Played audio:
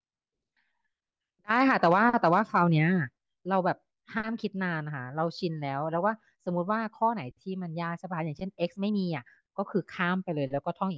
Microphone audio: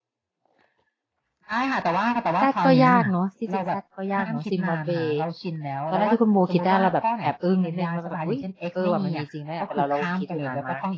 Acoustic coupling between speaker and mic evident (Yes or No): Yes